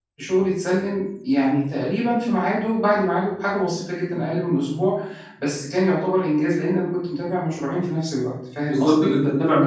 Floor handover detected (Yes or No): Yes